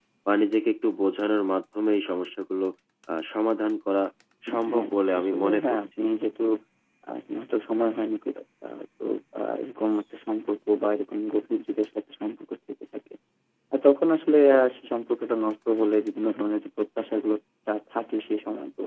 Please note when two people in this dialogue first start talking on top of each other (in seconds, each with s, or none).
4.5 s